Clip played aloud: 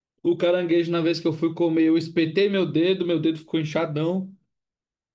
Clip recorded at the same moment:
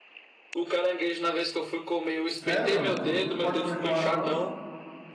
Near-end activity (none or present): present